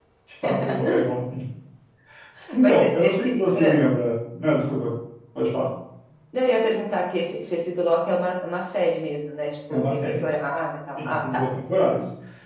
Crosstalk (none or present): present